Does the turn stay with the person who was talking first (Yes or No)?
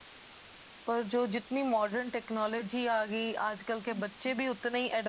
Yes